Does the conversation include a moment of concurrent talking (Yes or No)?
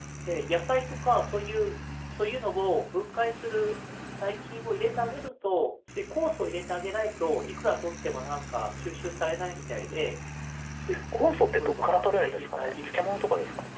Yes